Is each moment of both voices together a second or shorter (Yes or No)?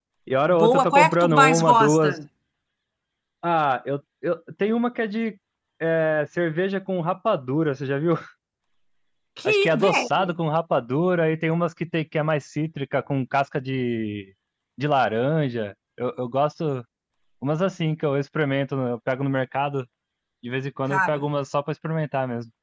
No